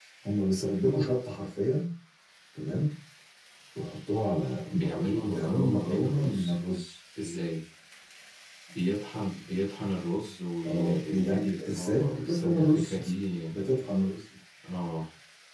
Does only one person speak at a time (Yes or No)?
No